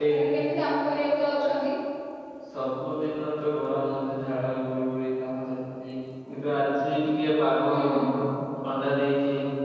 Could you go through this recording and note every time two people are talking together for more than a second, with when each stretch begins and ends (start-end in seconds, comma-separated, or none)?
none